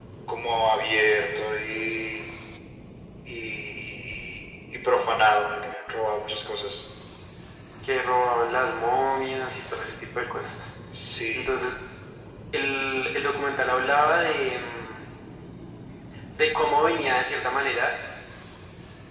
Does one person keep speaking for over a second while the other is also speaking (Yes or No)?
No